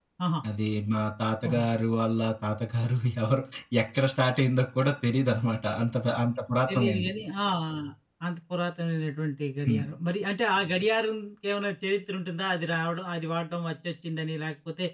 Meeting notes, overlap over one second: none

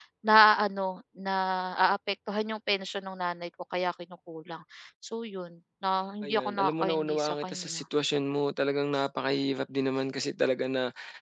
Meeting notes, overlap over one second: present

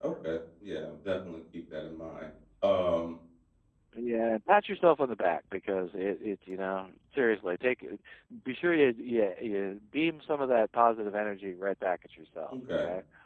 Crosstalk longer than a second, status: none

